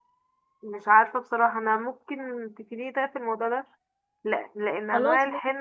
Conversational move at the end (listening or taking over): listening